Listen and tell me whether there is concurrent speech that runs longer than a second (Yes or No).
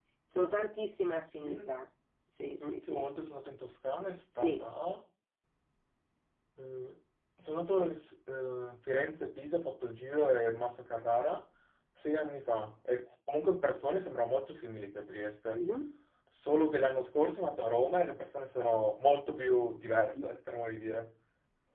No